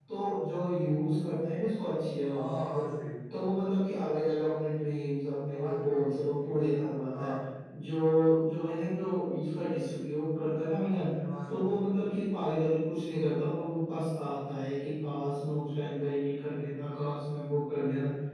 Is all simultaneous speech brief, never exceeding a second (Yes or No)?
Yes